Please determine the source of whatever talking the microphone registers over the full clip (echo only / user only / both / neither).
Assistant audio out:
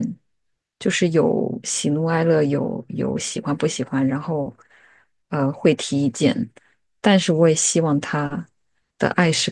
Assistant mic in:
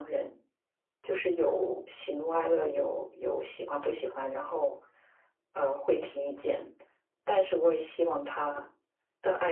echo only